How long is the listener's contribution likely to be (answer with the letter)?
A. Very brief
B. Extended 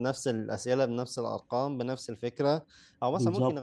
A